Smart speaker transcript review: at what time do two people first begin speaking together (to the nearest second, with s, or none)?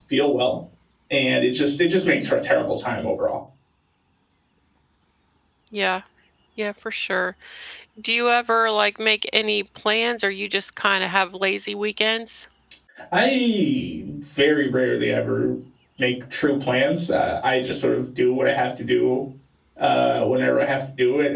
none